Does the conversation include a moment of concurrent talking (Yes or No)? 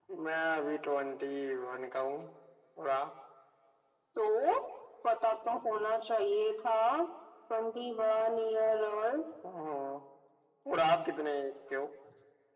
No